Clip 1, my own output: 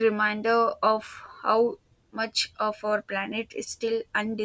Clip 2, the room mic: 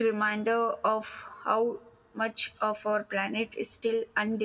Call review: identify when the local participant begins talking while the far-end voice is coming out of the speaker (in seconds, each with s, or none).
none